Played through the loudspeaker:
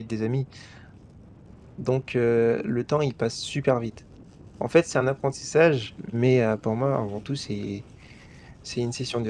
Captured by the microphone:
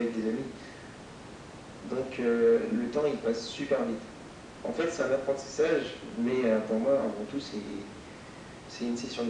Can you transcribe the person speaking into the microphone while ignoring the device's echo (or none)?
none